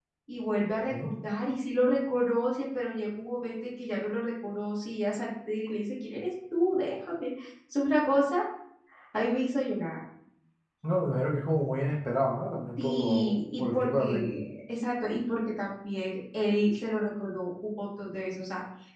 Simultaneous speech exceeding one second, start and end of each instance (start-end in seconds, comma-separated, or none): 12.8-14.4